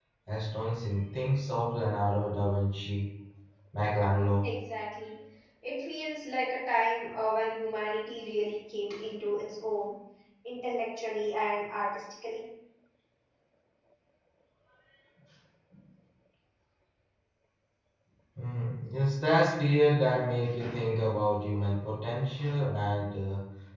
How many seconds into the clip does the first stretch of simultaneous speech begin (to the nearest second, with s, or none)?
none